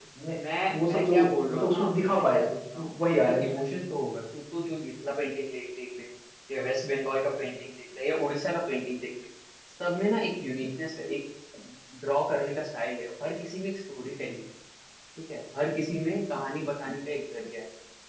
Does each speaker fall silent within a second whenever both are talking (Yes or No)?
No